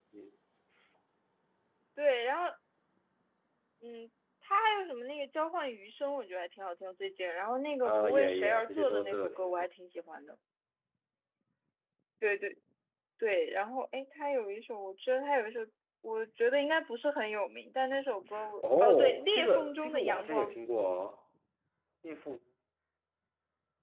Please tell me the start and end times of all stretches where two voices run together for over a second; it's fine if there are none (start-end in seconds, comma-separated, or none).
7.8-9.5, 18.8-20.5